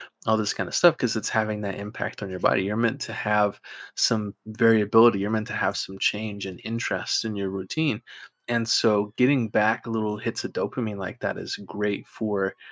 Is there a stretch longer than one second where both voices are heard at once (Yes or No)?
No